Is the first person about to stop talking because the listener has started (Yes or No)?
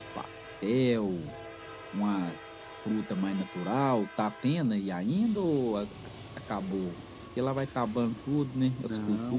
Yes